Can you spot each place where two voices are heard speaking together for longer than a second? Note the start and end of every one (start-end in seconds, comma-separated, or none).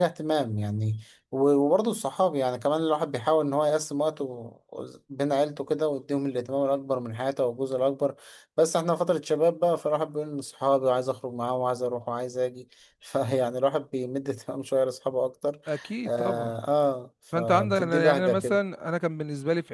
17.4-18.6